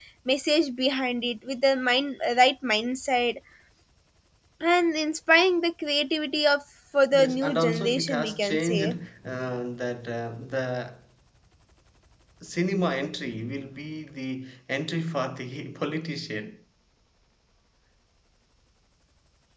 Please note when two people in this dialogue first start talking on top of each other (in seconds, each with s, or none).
7.1 s